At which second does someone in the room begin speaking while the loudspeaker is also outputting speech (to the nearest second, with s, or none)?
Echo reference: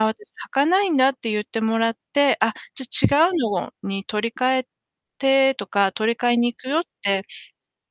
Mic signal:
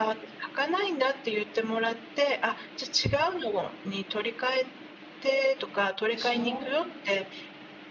6 s